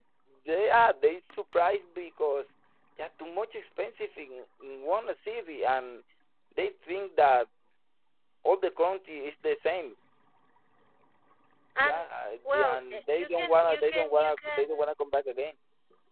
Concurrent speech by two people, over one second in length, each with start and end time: 12.4-14.9

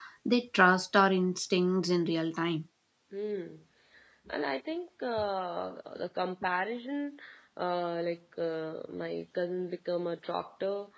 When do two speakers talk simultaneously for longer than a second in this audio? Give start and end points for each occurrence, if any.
none

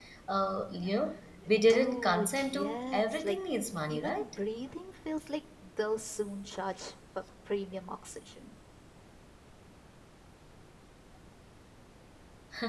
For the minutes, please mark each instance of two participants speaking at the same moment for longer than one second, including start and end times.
1.7-3.4

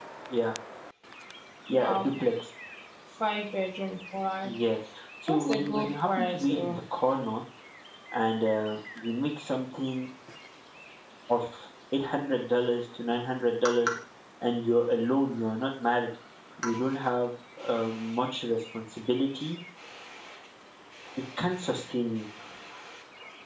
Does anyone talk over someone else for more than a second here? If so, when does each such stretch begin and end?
5.3-6.8

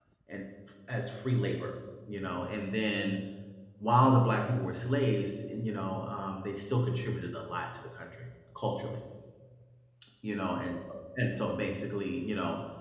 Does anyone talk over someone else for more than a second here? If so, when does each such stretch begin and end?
none

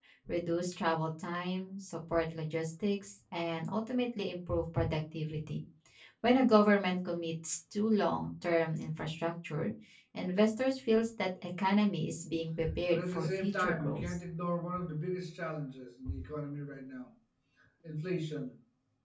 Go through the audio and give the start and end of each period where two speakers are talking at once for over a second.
12.9-14.1

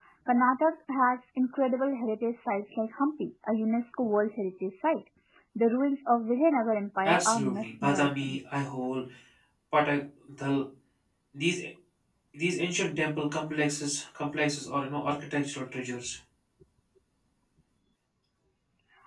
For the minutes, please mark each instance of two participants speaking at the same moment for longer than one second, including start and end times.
7.0-8.4

